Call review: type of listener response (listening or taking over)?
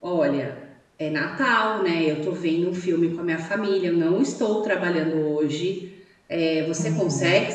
listening